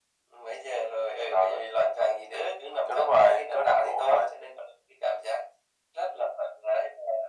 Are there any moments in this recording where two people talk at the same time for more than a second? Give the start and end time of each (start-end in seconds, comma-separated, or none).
2.9-4.3